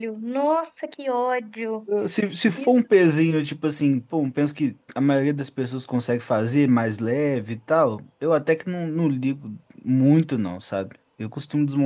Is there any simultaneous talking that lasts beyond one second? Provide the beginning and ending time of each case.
none

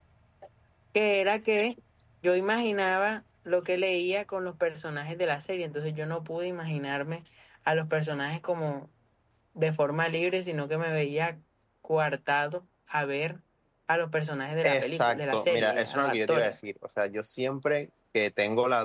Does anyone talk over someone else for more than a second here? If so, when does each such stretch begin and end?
14.6-16.5

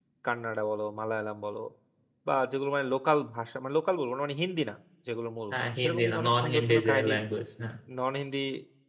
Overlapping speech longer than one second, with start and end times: 5.5-7.2

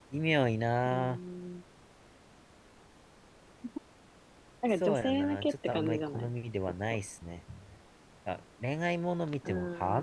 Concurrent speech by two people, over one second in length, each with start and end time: 4.8-6.3

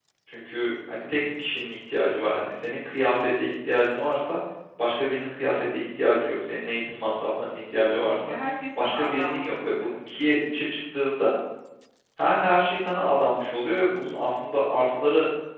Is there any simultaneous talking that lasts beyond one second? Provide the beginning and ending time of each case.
8.8-10.0

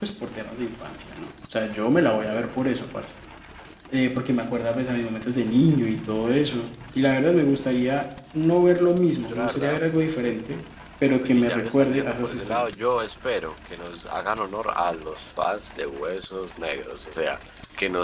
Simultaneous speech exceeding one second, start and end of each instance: 11.2-12.7

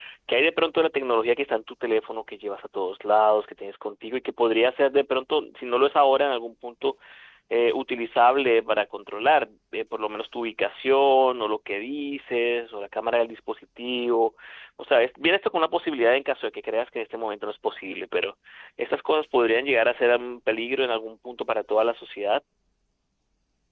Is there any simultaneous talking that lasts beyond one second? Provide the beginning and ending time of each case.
none

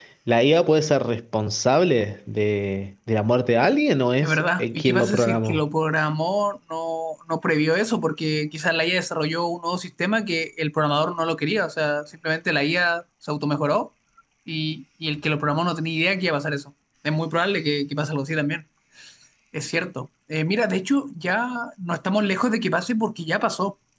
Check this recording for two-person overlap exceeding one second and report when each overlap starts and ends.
4.2-5.6

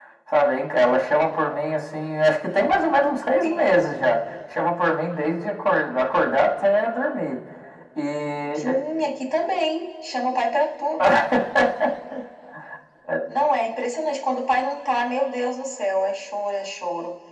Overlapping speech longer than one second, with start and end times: none

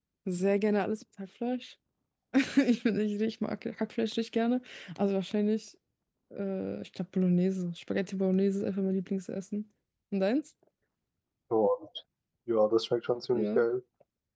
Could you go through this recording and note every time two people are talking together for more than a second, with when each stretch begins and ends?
none

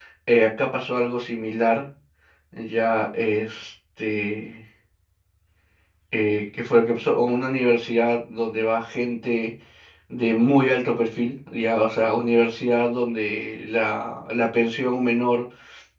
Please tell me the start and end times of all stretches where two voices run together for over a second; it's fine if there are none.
none

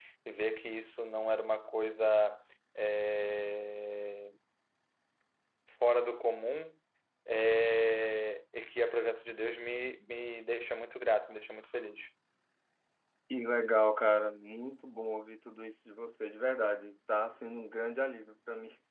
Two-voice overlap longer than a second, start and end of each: none

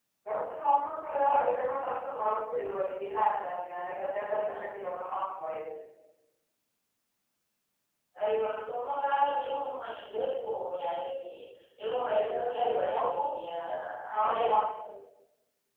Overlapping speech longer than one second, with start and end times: 12.1-13.4

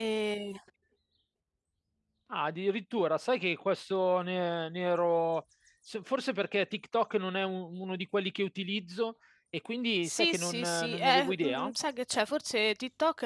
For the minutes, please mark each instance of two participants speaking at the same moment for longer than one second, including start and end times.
10.0-11.7

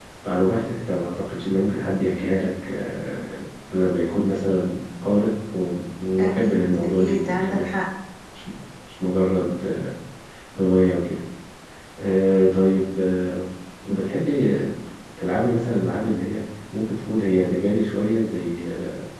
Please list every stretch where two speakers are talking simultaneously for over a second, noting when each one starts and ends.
6.2-7.6

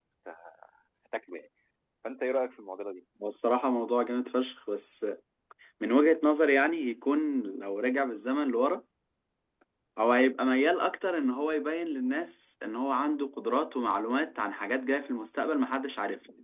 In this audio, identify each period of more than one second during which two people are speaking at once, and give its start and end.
none

